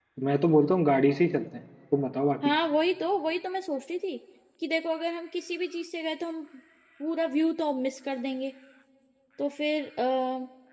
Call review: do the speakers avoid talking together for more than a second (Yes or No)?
Yes